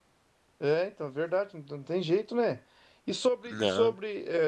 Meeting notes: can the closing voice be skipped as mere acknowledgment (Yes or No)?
Yes